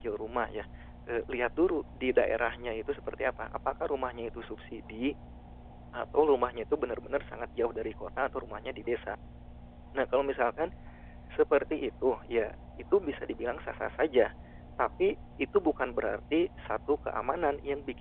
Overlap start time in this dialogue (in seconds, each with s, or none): none